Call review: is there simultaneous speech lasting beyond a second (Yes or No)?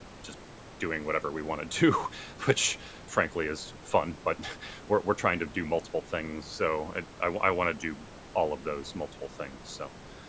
No